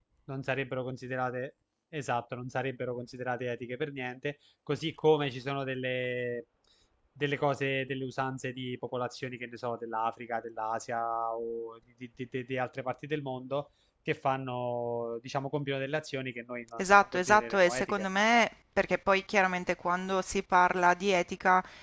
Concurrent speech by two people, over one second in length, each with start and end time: 16.8-18.1

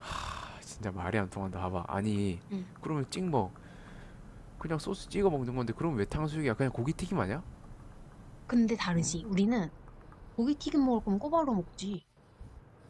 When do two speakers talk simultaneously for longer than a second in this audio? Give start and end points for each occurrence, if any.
none

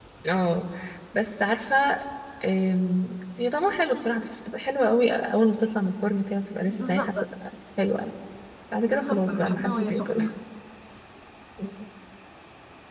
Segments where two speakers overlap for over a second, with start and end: 8.8-10.1

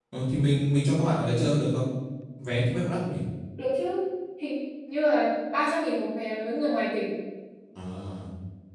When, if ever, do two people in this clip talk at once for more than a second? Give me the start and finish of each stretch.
none

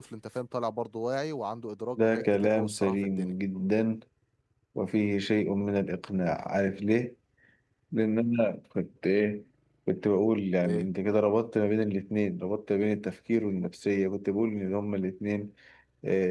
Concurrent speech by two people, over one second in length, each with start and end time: 2.0-3.4

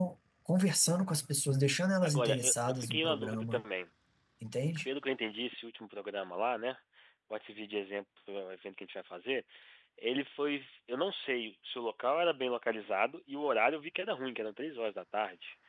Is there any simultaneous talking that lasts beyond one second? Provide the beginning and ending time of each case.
2.0-3.6

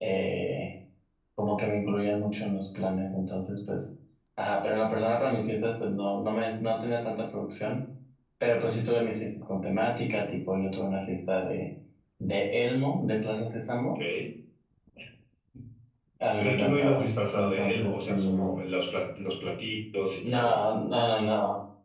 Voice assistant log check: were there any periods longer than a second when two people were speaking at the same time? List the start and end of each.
16.4-18.5

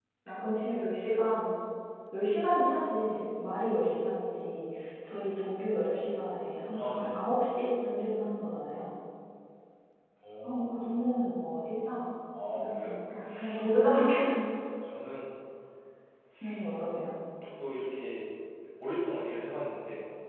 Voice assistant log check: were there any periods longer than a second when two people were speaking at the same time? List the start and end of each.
none

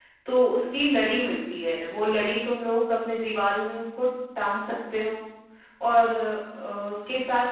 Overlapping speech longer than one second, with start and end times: none

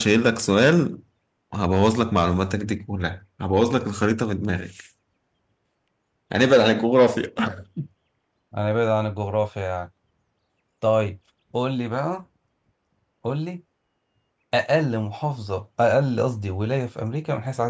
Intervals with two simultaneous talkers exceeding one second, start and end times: none

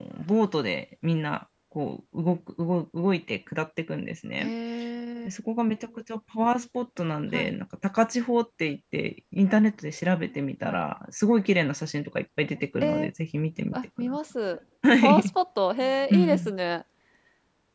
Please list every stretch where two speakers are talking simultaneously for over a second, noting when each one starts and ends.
none

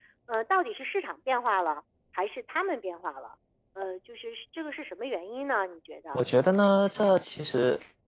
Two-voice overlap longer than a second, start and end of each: none

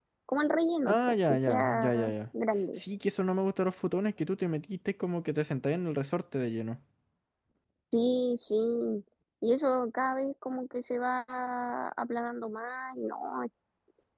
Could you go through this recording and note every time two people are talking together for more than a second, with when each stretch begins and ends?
0.9-2.1

